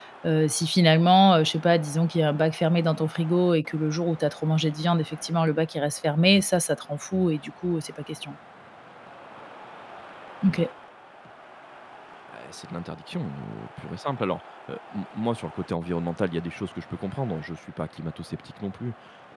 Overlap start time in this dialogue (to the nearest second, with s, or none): none